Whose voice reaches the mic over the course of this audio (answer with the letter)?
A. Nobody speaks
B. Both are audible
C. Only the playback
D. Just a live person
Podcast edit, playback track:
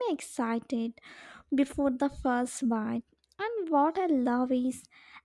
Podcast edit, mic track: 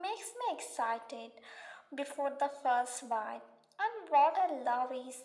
C